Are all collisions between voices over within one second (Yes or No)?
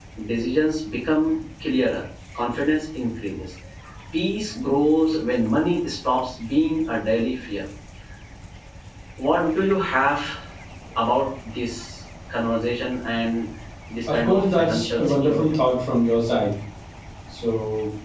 No